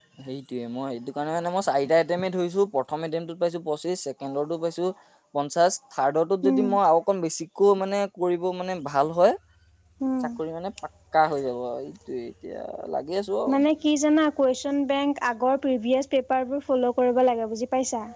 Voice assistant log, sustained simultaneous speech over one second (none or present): none